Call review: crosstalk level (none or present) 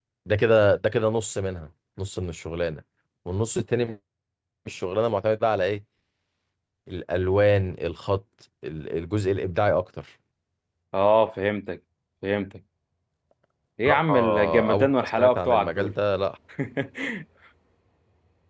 present